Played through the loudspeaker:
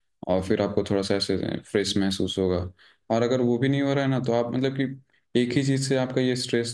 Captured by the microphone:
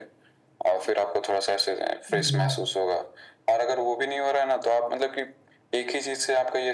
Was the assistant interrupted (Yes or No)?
Yes